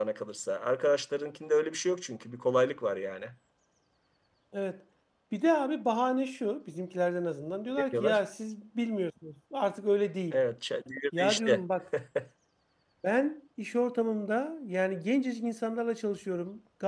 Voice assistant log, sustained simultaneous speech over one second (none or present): none